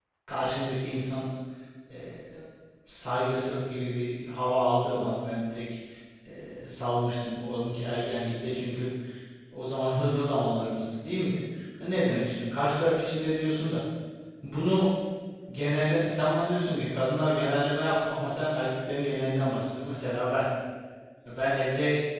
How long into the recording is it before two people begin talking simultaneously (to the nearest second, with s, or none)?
none